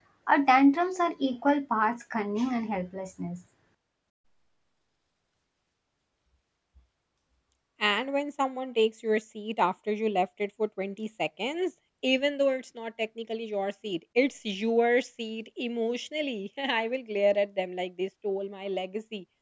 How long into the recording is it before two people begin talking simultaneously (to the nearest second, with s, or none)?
none